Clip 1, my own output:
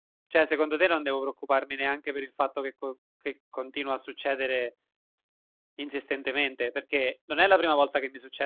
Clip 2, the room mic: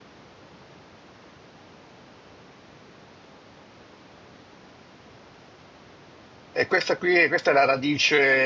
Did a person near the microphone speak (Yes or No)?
Yes